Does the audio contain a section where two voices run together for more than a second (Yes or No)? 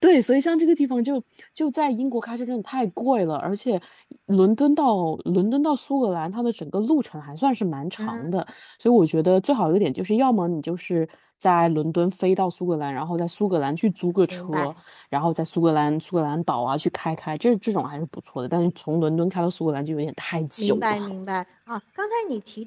No